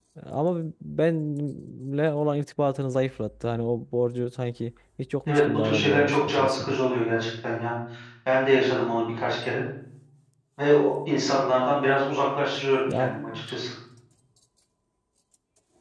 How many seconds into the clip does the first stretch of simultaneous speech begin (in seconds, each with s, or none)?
5.3 s